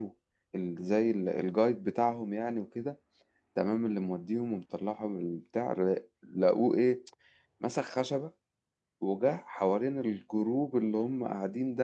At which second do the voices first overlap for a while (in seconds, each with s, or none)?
none